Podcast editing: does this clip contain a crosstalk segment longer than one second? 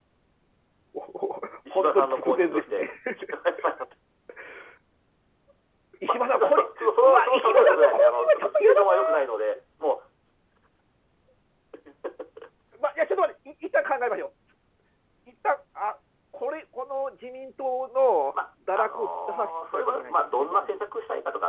Yes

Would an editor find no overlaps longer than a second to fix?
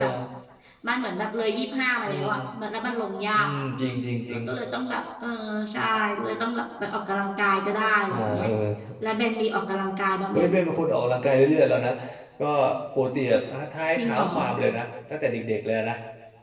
Yes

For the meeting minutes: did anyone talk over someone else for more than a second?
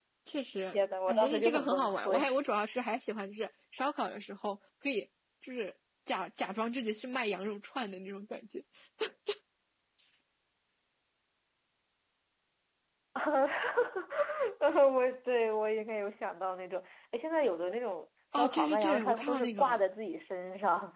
Yes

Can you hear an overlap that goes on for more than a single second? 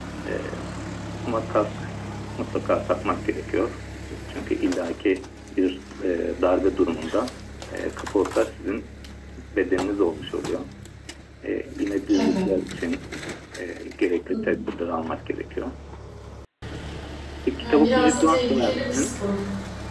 Yes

